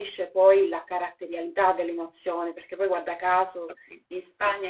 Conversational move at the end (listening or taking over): listening